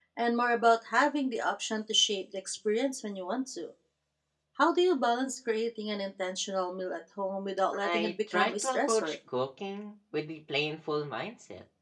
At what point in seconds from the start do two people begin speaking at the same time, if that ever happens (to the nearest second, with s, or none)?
8 s